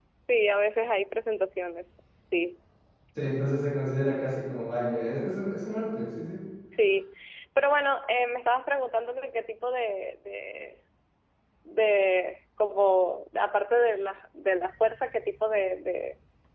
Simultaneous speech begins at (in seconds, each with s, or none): none